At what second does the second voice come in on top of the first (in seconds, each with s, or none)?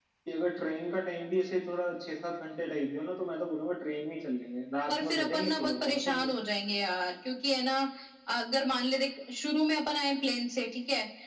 4.9 s